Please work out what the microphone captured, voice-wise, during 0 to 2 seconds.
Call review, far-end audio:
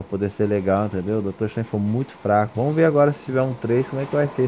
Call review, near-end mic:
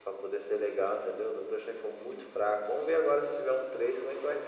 echo only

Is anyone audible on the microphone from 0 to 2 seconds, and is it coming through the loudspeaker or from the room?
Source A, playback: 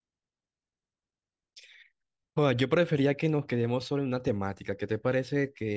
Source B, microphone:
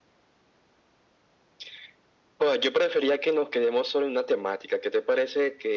neither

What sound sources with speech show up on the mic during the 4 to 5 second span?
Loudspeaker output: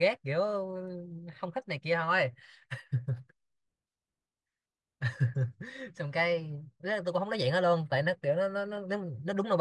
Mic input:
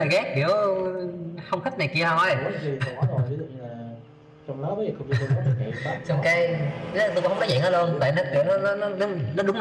user only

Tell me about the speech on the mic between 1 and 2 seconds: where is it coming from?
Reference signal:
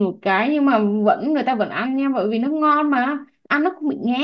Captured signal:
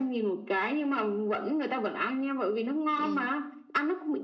echo only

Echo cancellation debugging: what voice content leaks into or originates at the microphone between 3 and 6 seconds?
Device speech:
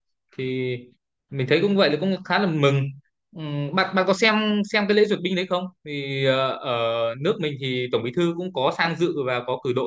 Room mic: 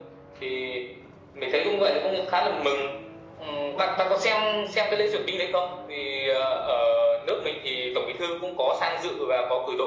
echo only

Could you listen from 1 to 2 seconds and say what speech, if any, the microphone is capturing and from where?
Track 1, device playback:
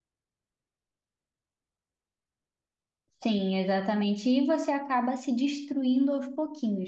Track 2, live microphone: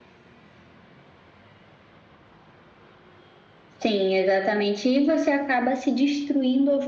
neither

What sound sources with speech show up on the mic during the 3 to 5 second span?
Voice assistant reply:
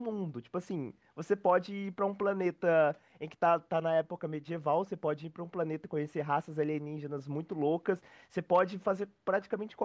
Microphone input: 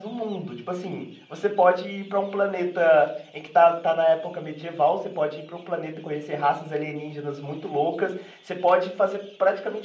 echo only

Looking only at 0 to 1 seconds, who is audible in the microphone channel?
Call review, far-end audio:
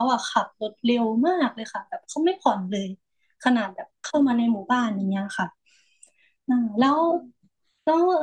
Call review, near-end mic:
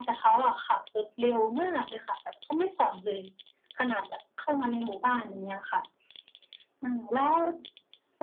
echo only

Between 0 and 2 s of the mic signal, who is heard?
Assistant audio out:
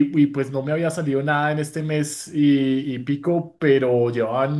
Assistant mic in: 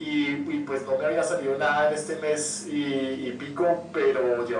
echo only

